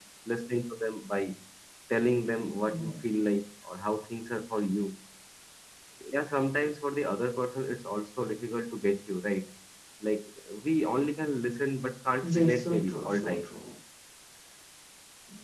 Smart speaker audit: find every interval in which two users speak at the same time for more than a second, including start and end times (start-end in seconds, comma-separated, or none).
12.2-13.6